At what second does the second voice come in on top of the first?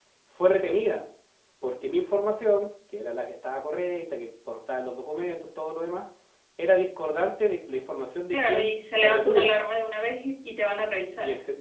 8.3 s

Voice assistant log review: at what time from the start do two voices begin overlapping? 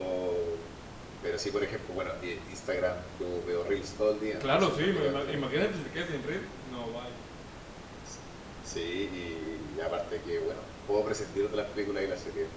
4.4 s

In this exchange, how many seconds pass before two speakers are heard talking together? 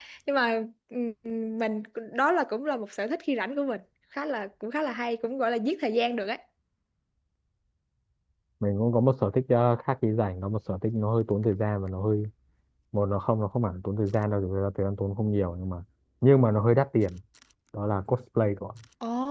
none

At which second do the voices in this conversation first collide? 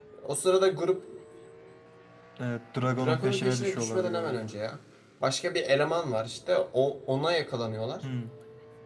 3.0 s

